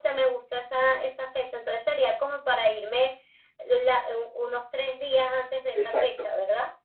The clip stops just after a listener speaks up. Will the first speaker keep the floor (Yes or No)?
No